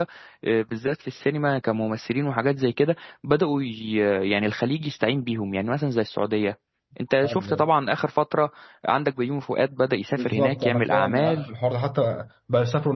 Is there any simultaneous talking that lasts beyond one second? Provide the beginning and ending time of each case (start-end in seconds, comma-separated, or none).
10.1-11.4